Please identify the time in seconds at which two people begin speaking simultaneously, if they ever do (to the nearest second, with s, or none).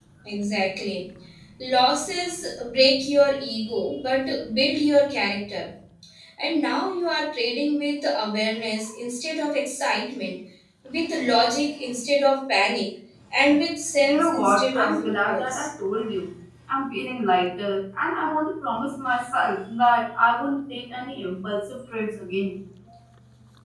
14 s